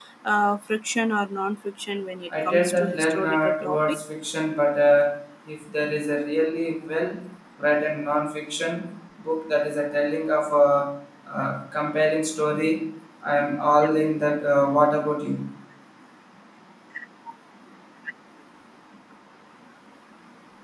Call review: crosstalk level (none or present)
present